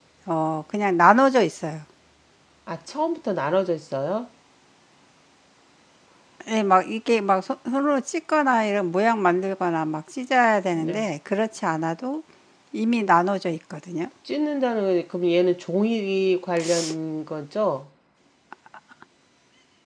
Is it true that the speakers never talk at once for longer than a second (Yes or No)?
Yes